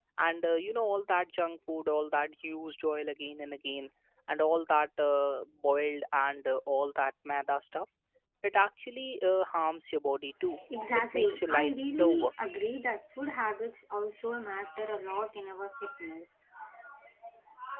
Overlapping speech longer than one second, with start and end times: 10.9-12.3

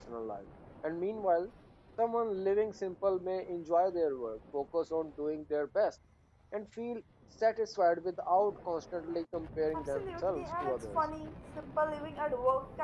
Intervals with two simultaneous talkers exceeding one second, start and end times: 9.7-11.0

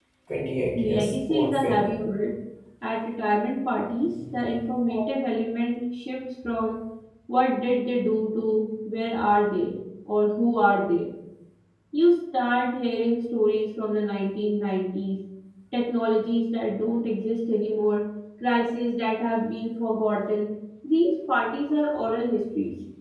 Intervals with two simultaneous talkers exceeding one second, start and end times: 0.8-2.0

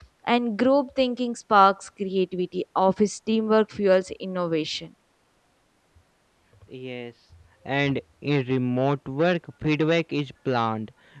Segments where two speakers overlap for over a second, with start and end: none

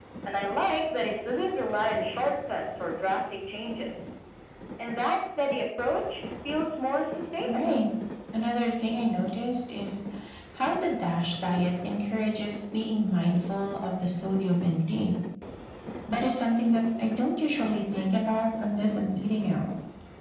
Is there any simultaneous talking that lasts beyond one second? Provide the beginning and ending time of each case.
none

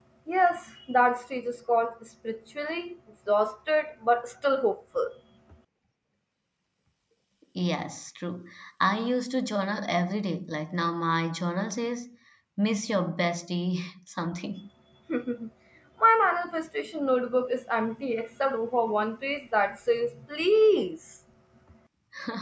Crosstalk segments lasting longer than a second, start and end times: none

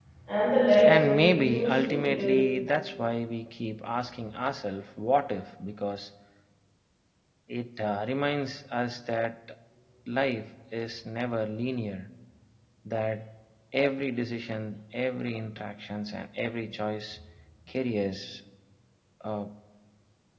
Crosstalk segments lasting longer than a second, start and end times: 0.8-2.3

